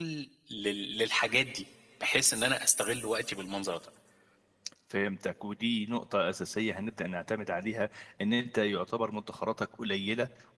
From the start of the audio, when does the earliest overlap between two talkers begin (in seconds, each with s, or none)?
none